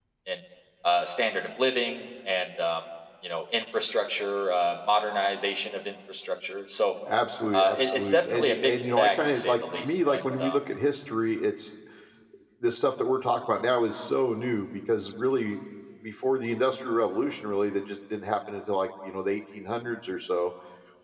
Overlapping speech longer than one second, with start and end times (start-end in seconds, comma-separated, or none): 7.5-10.6